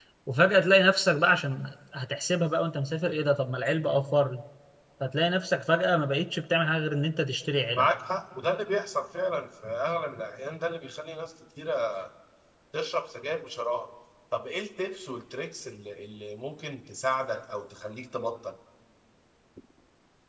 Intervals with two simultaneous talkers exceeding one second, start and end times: none

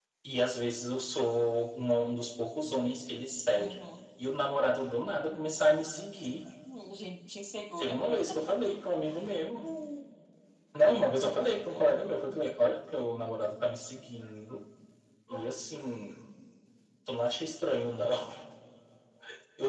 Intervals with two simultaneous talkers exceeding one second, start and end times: none

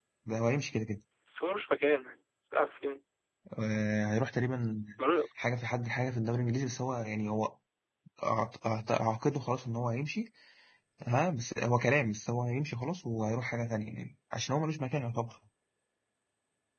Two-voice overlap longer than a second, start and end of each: none

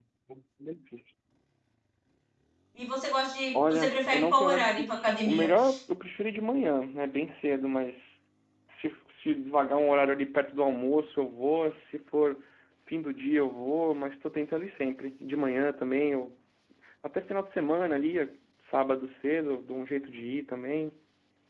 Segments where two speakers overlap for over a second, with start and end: 3.5-5.5

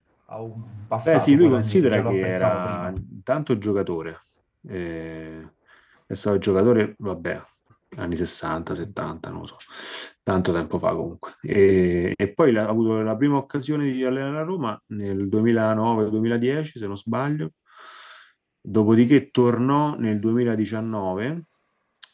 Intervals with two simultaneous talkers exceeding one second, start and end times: 1.0-2.9

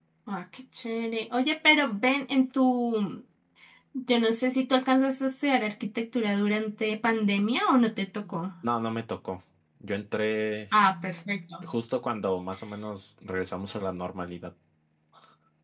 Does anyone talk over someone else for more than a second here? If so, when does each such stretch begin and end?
none

